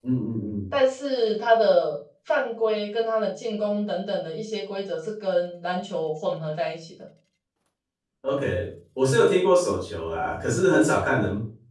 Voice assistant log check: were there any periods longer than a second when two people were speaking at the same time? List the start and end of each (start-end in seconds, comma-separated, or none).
none